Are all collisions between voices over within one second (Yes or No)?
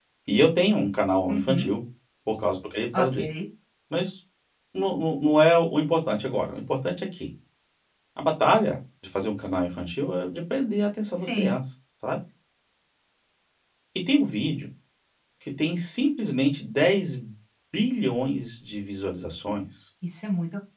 Yes